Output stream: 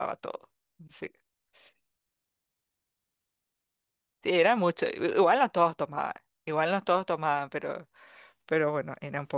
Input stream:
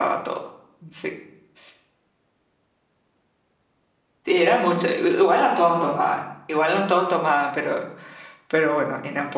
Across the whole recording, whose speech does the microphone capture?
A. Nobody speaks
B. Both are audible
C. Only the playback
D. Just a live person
C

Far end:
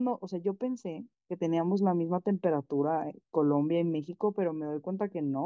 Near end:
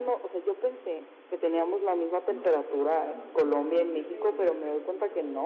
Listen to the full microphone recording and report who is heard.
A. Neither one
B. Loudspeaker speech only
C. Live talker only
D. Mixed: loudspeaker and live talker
D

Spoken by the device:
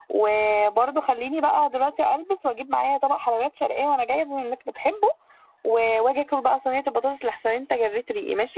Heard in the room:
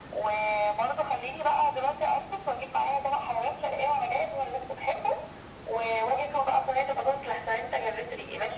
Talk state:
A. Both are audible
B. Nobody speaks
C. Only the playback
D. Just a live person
C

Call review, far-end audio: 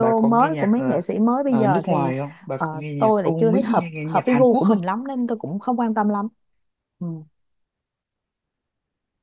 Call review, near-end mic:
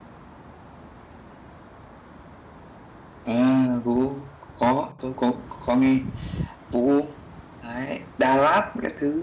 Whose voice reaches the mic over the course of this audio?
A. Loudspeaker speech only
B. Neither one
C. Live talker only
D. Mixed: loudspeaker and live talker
C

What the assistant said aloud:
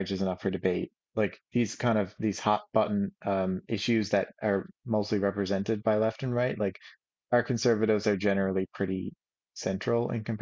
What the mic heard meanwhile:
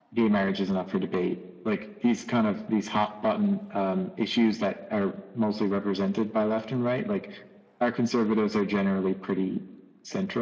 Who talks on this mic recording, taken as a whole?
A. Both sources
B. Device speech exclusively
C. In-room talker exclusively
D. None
B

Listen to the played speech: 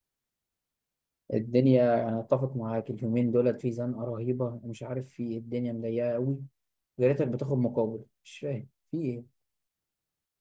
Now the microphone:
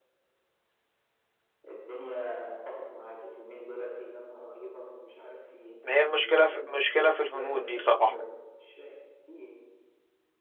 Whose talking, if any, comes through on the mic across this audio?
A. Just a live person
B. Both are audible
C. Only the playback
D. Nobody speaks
B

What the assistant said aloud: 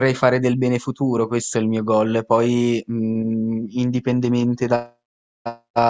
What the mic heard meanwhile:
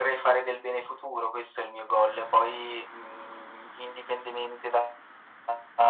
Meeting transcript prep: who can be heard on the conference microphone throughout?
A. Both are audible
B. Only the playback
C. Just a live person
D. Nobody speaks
B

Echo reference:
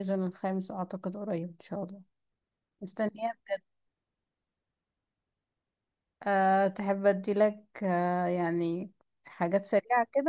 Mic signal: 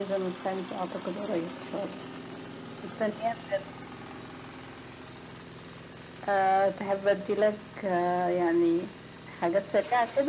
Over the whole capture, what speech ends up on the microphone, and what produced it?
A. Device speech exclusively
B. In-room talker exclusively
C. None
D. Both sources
A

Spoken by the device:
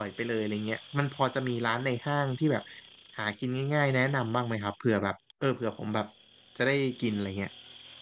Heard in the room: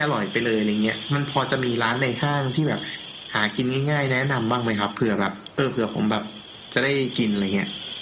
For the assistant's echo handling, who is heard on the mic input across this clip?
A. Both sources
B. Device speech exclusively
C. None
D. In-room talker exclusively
B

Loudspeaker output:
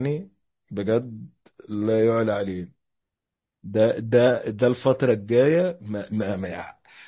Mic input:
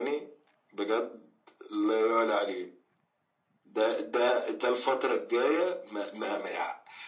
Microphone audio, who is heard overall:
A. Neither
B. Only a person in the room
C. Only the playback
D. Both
C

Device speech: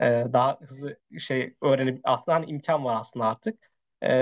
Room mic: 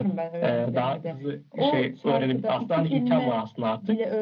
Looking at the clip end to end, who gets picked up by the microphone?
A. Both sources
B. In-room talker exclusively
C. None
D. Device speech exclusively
A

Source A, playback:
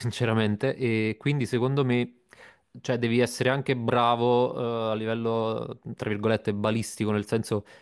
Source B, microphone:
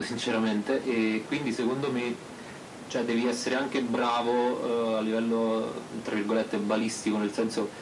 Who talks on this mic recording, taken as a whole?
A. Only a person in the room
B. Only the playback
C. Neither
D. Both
B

